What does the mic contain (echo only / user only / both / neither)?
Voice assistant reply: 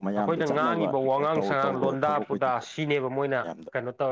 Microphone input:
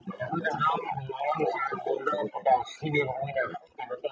echo only